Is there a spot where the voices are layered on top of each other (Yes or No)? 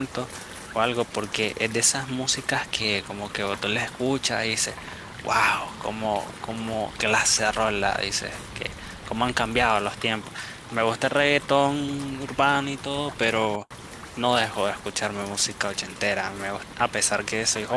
No